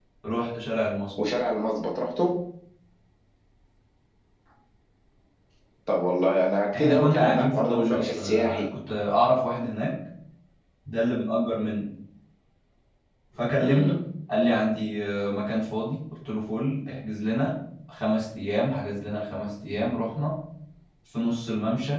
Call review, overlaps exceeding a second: present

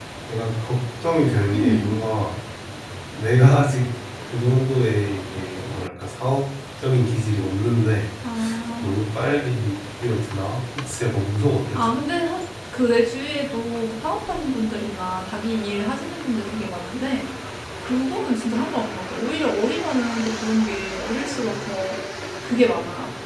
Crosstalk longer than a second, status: none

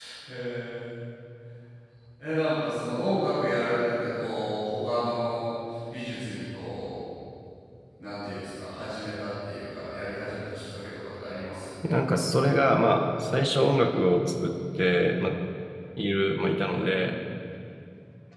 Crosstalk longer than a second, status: none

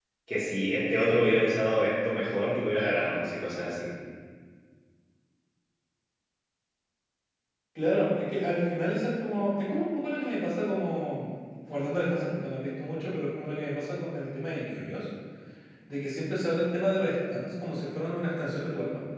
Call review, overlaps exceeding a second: none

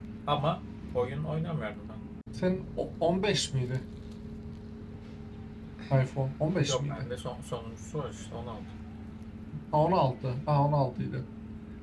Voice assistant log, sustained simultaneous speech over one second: none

